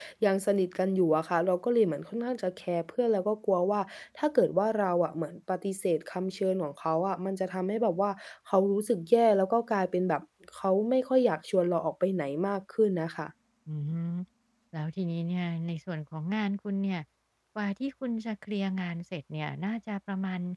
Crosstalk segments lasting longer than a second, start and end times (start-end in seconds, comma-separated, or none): none